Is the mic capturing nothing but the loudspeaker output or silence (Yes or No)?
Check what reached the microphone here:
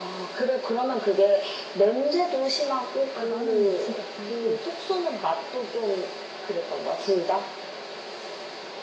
No